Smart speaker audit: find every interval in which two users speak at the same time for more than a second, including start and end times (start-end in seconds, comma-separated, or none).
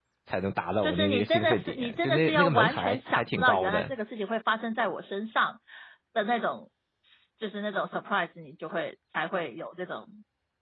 0.8-3.9